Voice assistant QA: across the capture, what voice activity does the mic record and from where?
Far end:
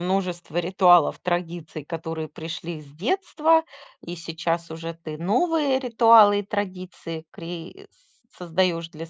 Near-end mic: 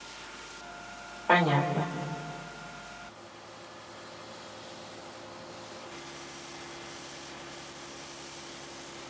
user only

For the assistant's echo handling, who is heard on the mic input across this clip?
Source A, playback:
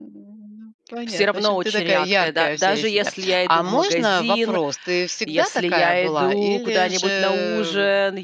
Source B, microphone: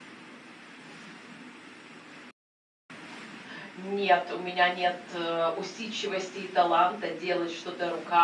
user only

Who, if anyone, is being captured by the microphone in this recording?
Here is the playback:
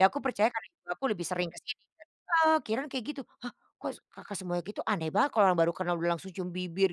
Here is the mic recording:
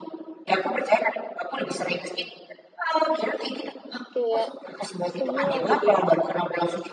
both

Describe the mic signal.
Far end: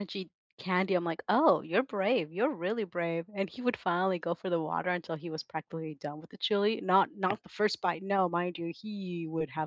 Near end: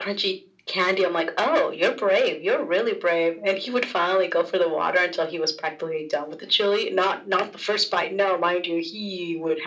echo only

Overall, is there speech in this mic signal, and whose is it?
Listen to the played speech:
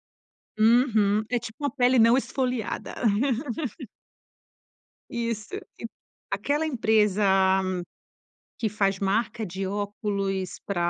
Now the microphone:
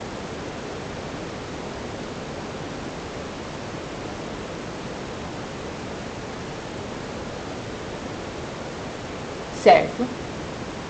user only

